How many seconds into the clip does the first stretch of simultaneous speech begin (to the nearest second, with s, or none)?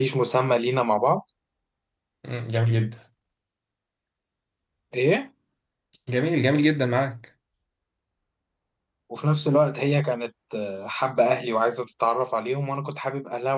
none